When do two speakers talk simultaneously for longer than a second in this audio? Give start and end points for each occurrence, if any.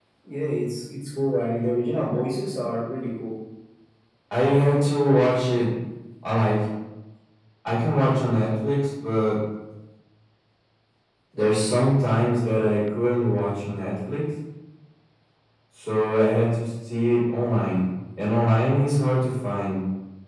none

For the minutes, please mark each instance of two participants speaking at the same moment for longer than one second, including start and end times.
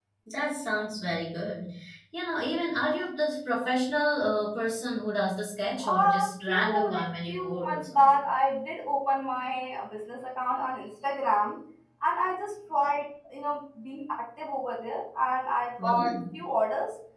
5.9-8.2

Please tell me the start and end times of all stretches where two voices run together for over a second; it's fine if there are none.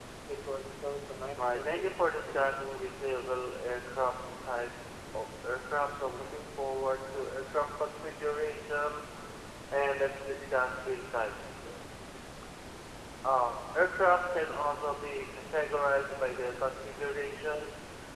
1.4-2.7

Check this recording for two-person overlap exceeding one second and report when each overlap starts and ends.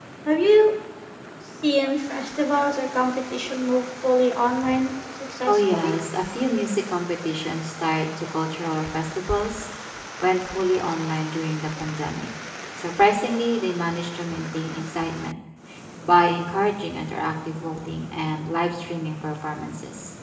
none

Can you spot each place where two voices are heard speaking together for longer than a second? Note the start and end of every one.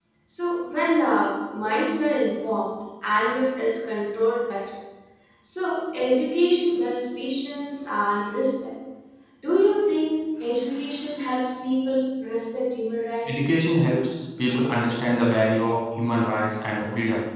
none

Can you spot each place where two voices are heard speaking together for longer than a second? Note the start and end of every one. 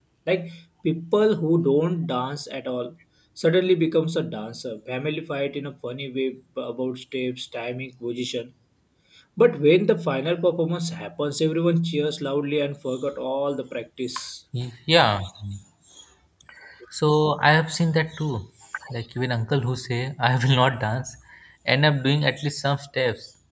none

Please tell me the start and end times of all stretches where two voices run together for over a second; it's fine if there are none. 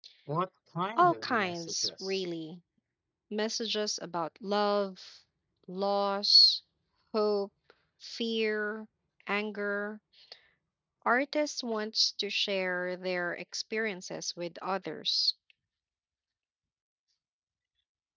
1.0-2.2

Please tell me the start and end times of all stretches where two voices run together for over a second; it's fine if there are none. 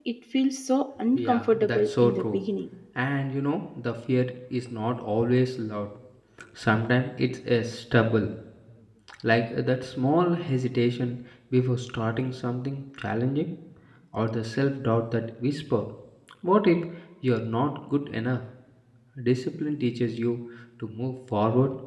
1.2-2.4

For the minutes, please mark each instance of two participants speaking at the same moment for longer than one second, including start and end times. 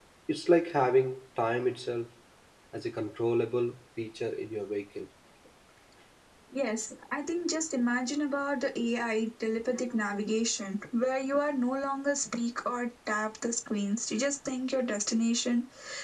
none

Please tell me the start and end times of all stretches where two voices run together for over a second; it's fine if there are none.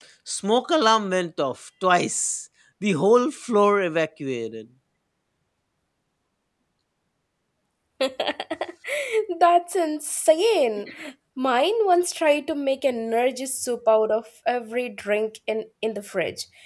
none

